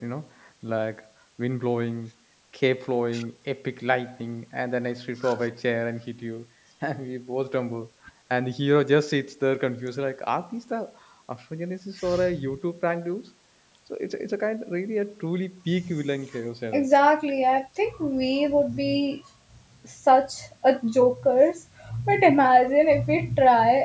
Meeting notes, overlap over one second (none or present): none